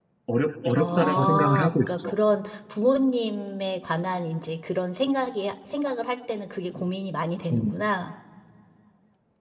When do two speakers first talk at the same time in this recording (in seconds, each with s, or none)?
0.8 s